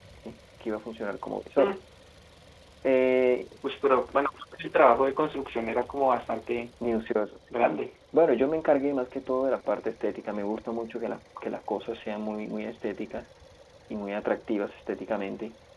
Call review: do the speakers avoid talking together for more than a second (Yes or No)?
Yes